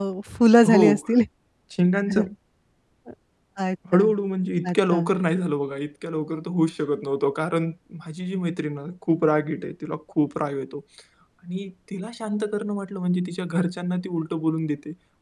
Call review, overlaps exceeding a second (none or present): none